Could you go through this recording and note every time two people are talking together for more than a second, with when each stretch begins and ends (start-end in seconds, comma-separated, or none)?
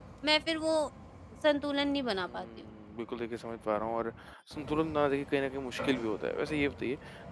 none